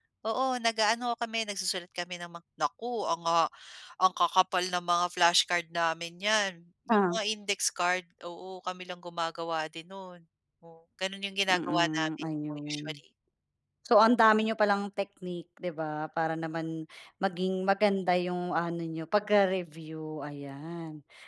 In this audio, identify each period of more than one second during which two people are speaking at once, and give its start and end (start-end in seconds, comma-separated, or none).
11.5-13.0